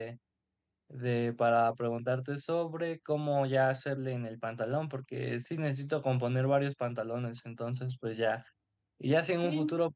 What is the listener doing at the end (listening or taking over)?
listening